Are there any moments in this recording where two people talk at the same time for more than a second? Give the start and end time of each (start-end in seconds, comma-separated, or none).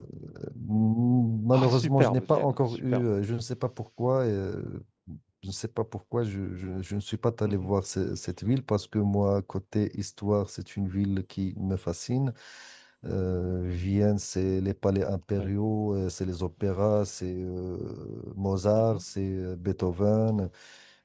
1.5-3.0